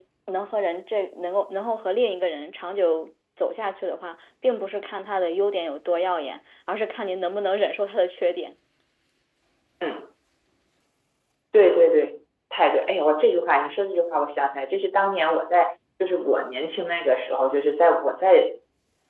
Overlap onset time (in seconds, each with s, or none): none